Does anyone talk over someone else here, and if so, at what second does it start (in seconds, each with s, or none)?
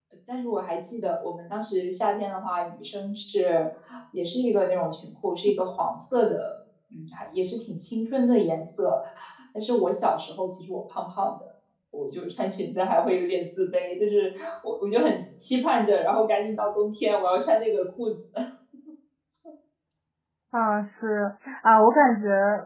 none